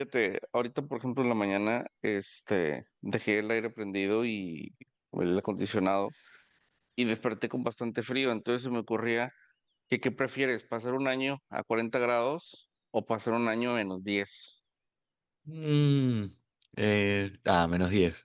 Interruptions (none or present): none